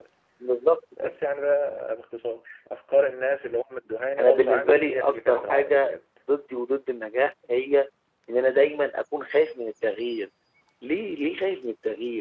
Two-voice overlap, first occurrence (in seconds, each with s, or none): 4.2 s